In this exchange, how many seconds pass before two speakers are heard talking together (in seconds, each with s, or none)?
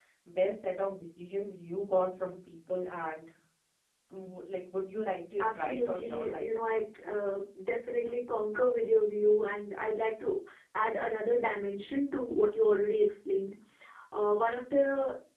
5.4 s